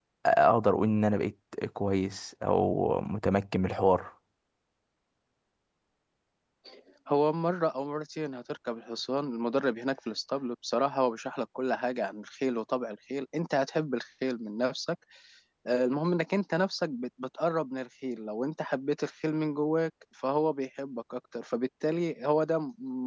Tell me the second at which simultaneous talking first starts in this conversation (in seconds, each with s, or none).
none